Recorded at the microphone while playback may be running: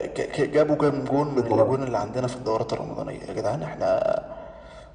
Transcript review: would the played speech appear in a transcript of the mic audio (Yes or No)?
Yes